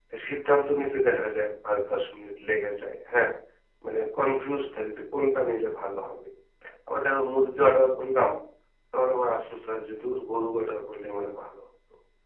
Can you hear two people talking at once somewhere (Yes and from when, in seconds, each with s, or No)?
No